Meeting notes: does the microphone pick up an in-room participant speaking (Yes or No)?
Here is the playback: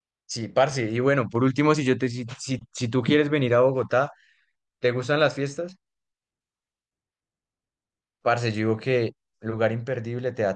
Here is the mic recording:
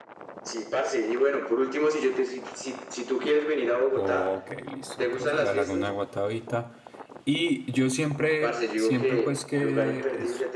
Yes